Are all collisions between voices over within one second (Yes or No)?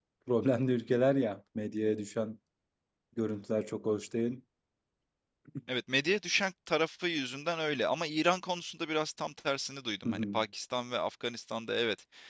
Yes